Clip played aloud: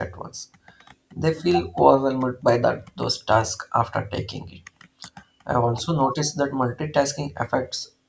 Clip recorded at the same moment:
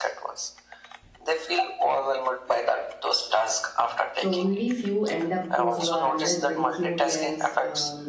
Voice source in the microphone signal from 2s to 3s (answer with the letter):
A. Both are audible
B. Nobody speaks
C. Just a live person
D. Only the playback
D